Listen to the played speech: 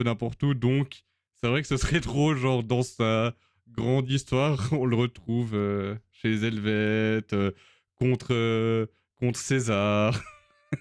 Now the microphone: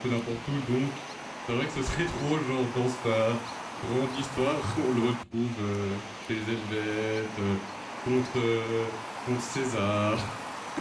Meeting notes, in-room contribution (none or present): none